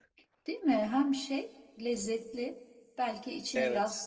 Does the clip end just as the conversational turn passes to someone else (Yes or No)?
No